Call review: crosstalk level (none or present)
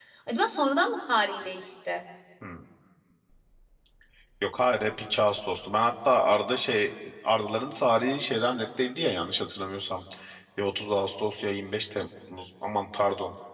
none